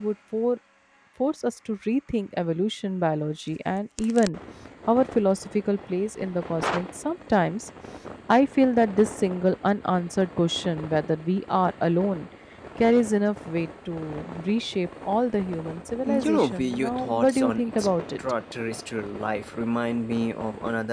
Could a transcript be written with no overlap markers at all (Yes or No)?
No